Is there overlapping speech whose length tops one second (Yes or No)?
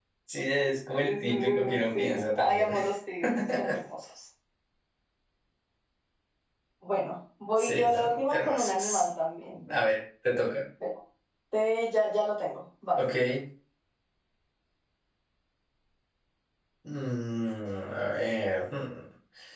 Yes